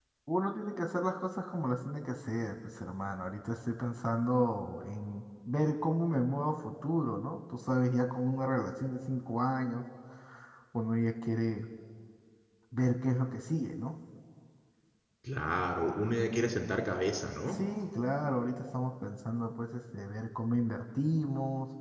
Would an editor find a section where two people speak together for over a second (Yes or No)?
No